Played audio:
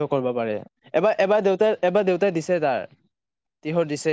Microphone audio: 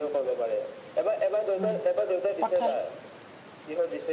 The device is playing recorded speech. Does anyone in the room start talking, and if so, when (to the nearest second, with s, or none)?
2 s